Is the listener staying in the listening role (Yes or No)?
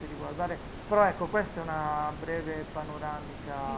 No